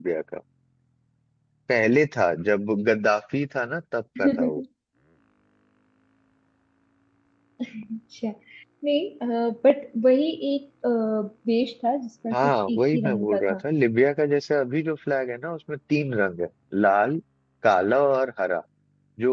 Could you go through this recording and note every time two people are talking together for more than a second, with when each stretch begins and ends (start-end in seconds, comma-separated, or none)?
12.3-13.6